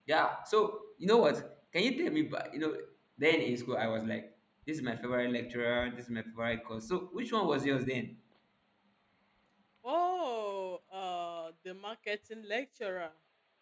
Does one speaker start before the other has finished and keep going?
No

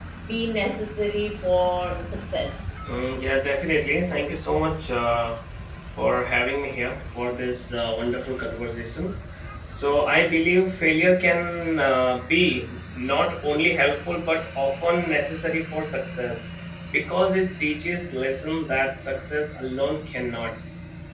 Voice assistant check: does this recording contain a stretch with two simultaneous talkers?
No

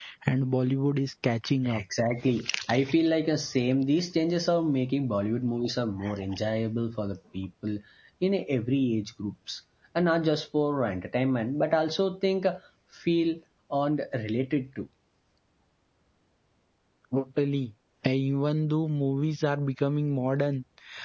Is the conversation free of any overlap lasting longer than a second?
Yes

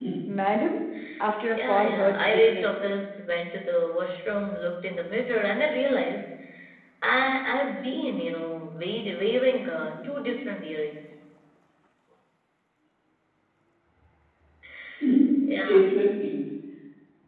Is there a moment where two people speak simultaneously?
Yes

